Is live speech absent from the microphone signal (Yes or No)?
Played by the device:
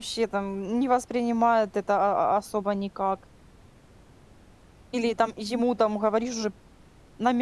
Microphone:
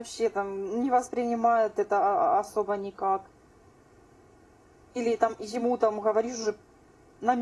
Yes